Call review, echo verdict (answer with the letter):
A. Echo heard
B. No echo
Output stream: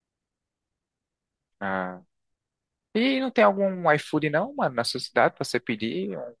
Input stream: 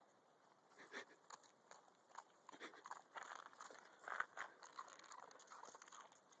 B